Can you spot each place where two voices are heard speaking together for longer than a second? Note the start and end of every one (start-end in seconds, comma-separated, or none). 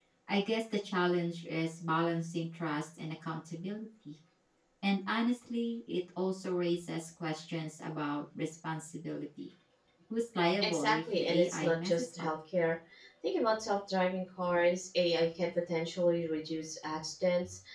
10.6-12.3